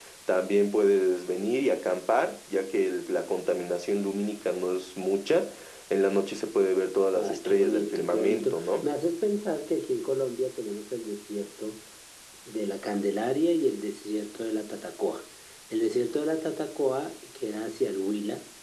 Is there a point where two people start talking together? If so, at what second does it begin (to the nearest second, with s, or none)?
7 s